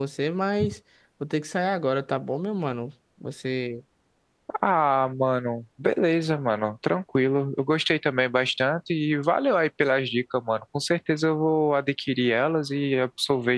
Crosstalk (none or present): none